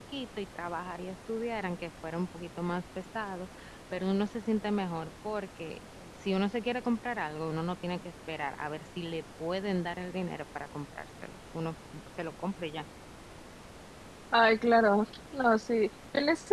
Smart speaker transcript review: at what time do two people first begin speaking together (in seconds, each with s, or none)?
none